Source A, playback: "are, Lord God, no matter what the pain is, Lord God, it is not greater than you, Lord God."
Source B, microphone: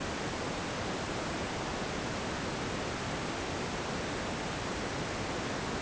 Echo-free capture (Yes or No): Yes